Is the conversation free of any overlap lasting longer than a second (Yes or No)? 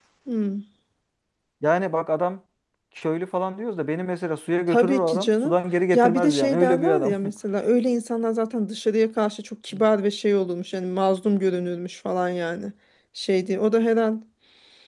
No